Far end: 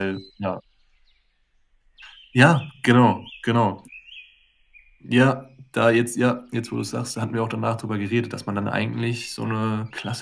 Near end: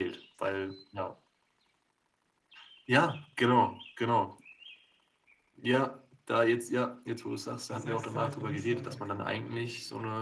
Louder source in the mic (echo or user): echo